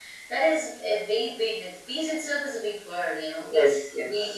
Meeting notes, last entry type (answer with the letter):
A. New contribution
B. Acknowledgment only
B